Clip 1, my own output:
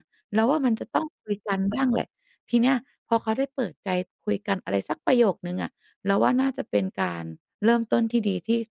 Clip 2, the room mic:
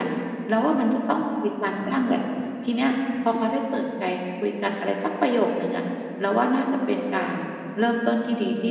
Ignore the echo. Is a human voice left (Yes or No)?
No